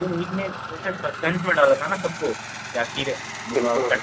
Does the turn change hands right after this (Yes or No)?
No